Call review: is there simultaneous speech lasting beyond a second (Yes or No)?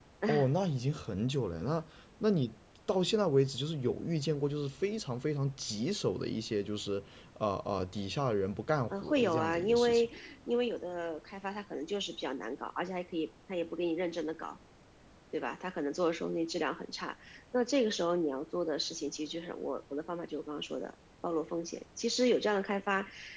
Yes